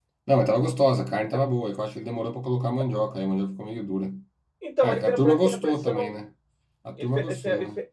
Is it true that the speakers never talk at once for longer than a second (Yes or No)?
No